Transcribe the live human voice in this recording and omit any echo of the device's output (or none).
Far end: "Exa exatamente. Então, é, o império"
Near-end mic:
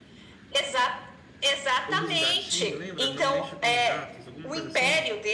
o dos gatinhos, lembra? Não mexa com os gatos, alguma coisa assim?